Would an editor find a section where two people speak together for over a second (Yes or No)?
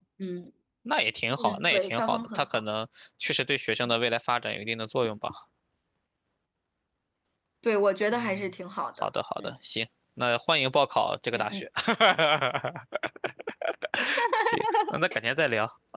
Yes